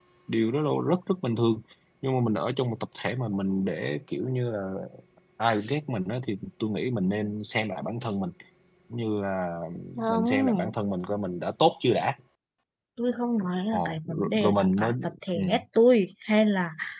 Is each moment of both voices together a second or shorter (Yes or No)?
No